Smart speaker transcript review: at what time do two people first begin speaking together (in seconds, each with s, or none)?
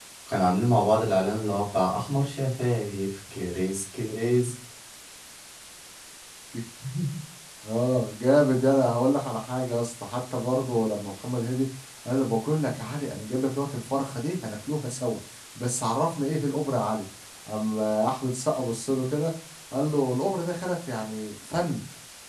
none